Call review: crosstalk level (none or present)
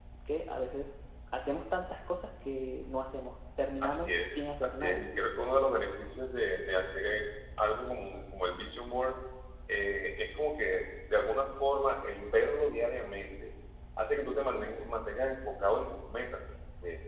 present